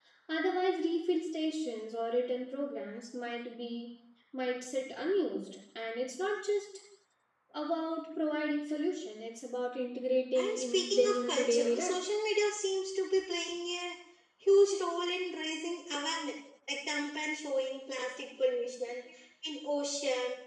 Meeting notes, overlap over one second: present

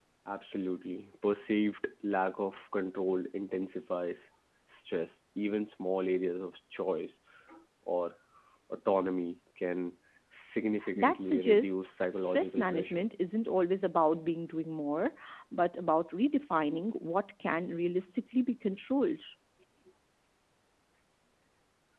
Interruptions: present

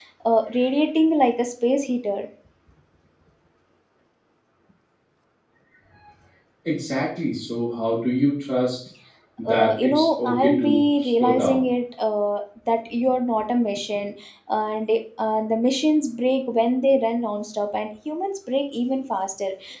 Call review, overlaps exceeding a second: present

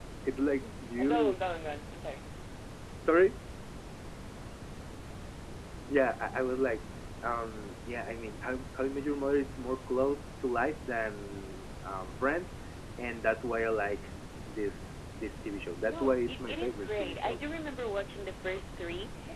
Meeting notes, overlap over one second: present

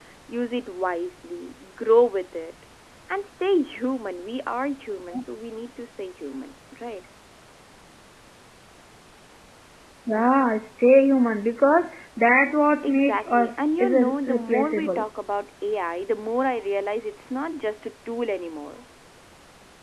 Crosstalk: present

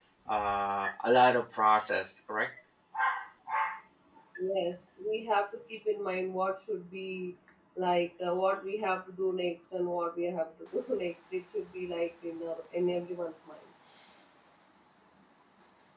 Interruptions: none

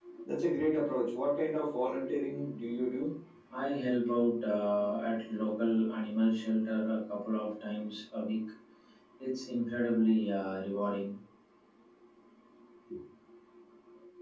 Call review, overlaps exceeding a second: none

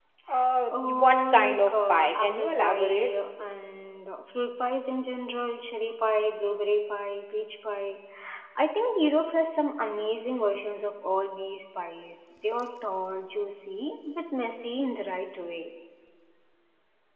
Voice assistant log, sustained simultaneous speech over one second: present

